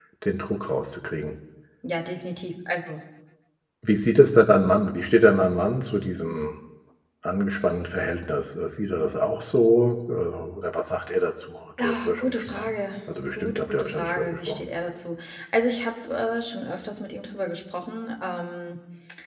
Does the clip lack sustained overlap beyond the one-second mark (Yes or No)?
No